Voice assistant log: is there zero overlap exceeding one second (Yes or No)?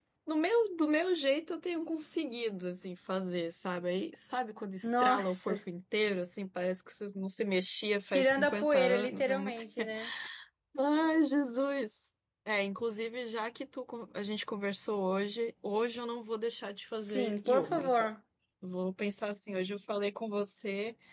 No